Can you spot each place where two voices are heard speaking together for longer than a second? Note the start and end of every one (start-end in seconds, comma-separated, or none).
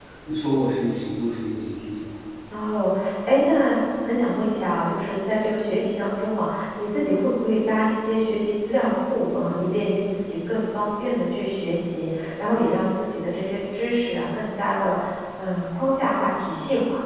none